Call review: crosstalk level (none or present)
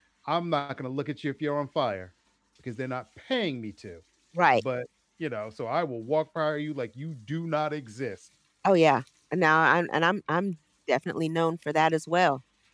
none